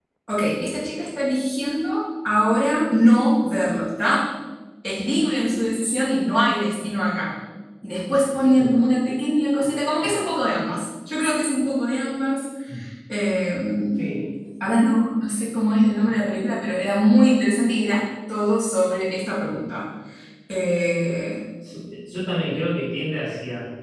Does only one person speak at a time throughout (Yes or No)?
Yes